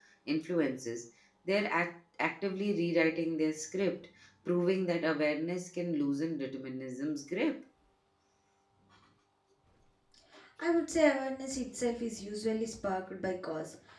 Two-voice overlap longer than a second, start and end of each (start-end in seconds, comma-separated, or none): none